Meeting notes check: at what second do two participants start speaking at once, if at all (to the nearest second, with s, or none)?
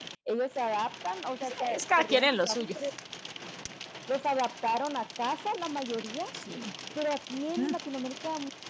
1 s